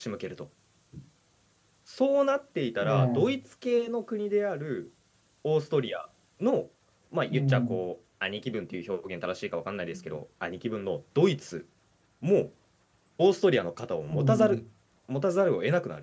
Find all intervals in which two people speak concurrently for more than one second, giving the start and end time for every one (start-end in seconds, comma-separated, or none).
none